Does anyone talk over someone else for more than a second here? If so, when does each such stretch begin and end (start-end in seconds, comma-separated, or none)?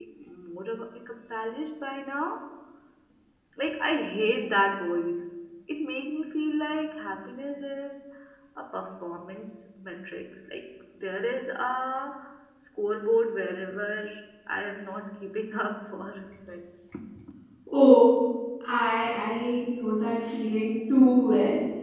none